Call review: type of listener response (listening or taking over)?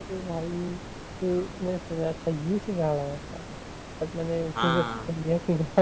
listening